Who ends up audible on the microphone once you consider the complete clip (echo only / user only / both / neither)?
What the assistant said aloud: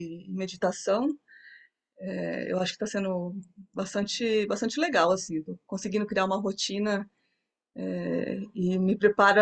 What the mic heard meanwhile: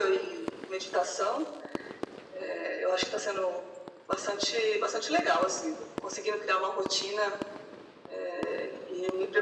echo only